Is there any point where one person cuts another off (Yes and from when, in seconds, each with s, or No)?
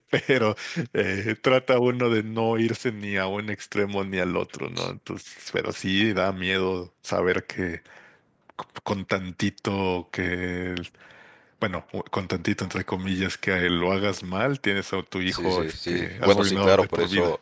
Yes, from 15.3 s